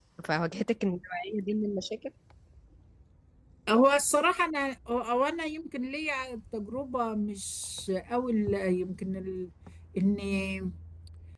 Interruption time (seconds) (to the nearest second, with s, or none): none